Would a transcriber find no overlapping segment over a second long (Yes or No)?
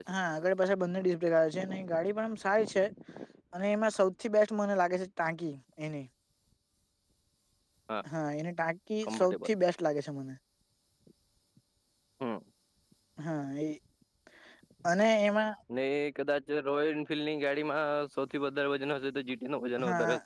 Yes